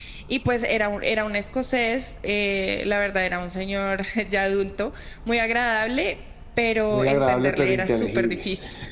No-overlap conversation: No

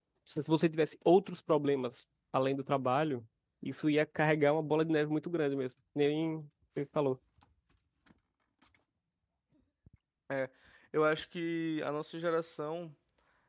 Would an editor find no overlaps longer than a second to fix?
Yes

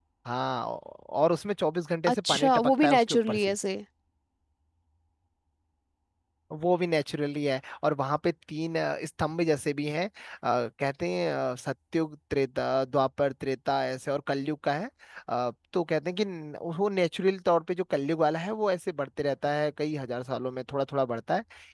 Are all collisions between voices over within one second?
No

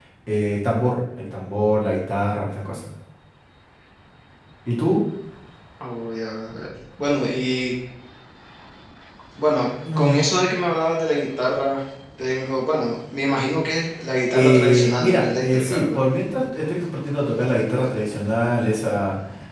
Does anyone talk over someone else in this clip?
Yes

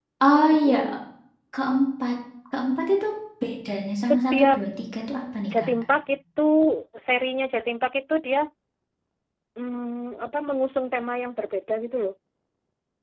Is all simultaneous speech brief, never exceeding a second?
Yes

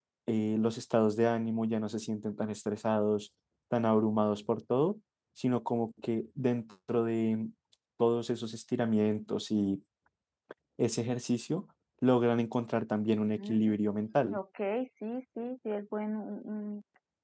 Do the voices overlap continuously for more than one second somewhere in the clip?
No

